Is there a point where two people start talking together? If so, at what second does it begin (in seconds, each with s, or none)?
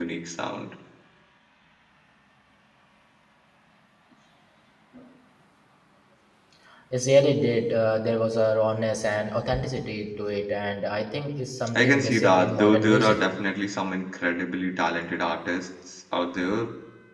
11.8 s